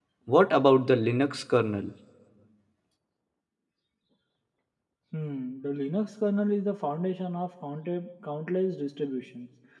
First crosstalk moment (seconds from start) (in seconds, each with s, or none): none